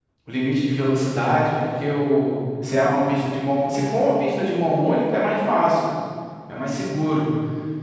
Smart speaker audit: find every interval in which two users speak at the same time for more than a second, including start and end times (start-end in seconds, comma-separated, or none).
none